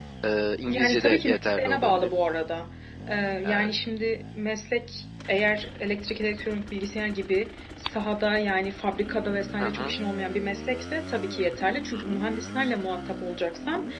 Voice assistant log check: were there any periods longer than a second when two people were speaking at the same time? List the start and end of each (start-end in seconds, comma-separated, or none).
0.6-2.1